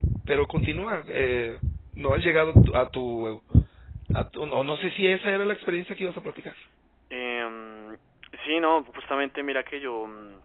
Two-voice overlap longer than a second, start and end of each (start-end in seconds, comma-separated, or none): none